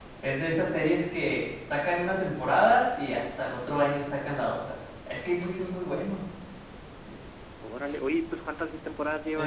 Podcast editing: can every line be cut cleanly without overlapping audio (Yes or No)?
Yes